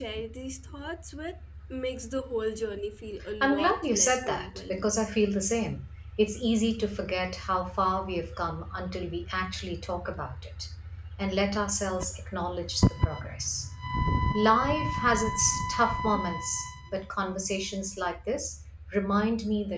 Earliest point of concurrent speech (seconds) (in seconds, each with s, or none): 3.2 s